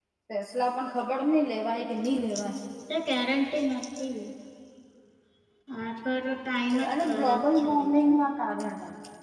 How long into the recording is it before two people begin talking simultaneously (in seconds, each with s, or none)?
6.6 s